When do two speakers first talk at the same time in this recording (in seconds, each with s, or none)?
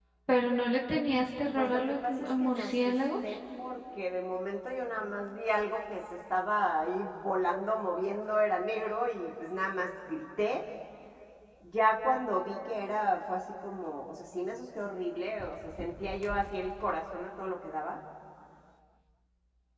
1.5 s